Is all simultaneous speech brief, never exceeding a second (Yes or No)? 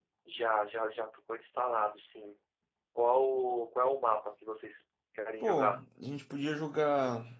Yes